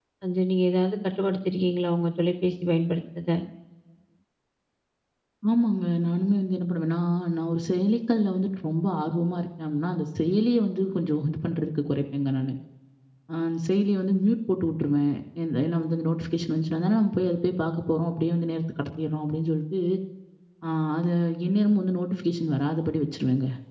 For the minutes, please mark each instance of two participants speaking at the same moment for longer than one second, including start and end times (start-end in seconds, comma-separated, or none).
none